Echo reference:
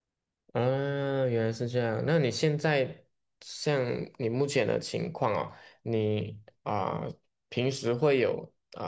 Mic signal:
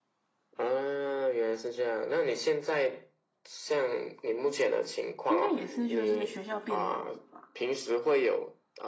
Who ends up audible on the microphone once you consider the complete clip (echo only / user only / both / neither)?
both